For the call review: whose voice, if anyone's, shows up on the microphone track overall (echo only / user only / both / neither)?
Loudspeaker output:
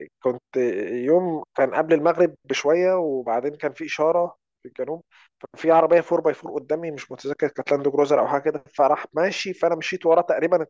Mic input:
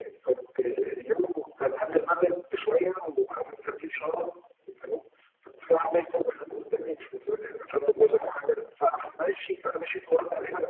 echo only